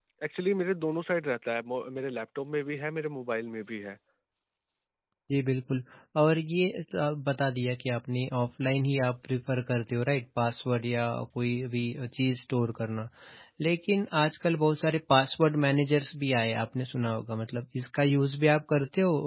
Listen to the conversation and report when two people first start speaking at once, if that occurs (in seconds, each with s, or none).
none